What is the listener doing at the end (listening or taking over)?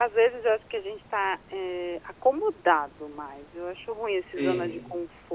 listening